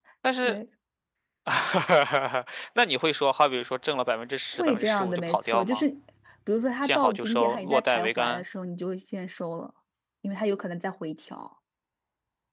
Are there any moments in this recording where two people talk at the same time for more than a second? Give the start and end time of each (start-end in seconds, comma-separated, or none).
4.5-5.8, 6.8-8.4